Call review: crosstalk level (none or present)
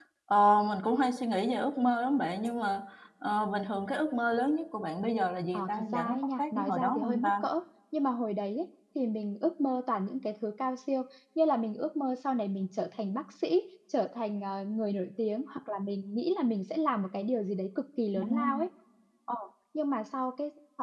present